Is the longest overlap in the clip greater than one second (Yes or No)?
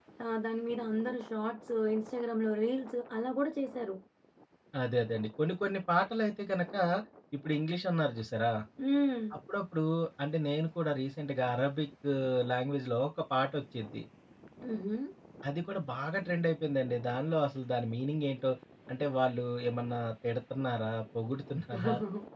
No